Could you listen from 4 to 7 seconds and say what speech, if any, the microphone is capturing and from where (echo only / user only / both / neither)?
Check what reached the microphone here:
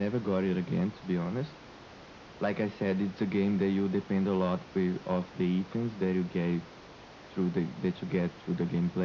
echo only